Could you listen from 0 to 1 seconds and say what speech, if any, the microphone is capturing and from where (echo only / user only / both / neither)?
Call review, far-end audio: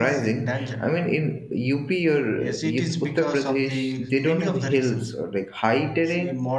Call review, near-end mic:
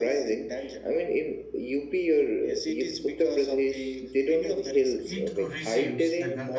echo only